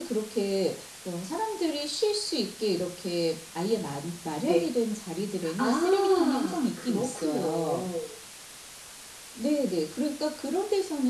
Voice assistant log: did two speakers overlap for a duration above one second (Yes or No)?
Yes